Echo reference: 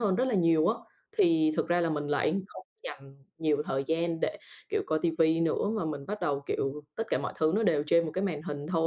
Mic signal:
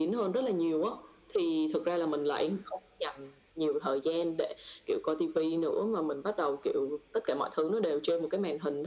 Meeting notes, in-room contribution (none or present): none